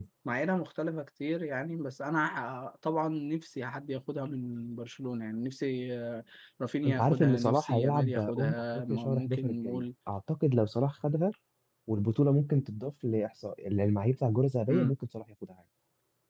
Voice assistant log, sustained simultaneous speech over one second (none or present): present